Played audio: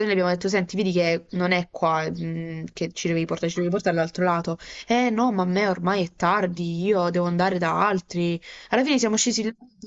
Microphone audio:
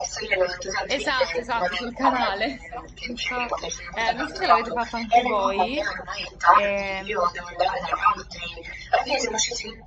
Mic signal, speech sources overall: both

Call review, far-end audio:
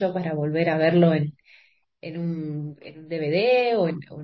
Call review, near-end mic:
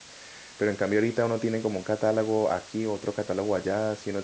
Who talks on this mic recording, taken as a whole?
user only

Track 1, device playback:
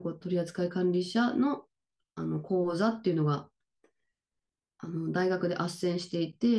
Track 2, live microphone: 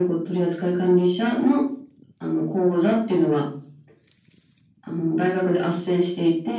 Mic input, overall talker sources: echo only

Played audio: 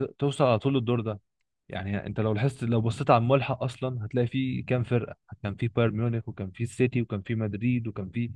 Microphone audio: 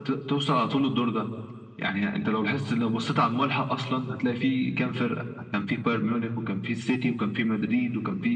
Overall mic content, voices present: echo only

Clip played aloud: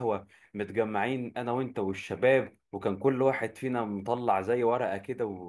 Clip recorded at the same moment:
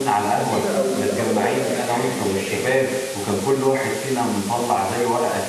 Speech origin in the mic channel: both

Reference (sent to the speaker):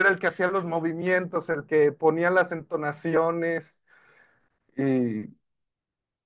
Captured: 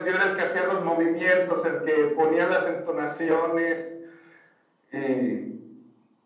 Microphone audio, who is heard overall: echo only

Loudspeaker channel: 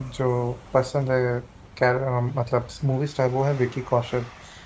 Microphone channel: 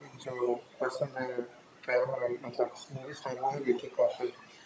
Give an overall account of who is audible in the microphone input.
echo only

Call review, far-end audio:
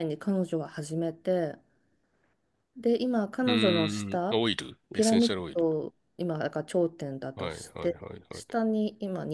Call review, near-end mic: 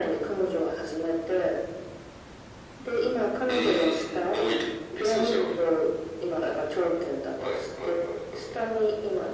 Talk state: echo only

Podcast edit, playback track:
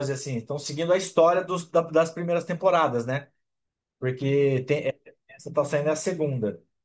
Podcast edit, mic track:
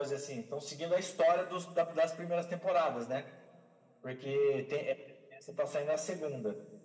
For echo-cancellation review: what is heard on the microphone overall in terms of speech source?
echo only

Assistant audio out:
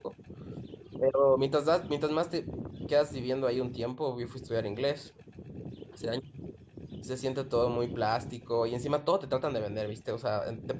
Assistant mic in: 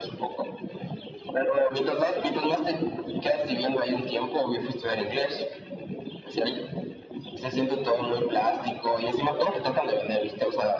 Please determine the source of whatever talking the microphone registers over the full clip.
echo only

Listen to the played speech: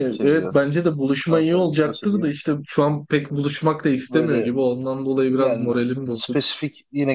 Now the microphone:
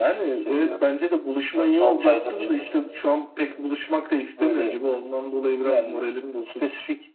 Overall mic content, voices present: both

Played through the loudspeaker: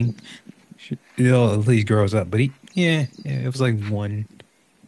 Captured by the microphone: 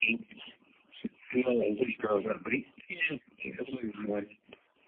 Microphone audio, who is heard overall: echo only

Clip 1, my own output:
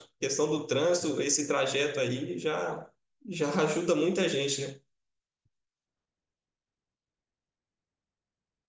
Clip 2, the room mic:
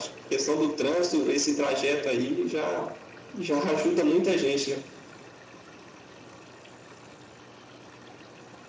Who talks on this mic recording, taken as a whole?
echo only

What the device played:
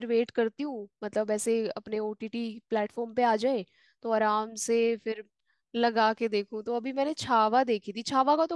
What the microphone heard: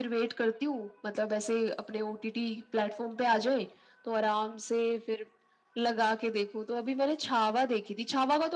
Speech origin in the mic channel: echo only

